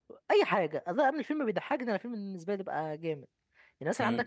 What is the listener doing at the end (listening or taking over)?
taking over